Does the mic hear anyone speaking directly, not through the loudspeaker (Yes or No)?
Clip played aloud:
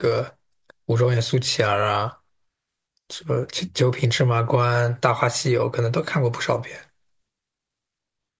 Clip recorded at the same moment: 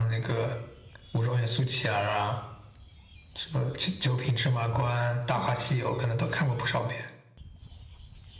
Yes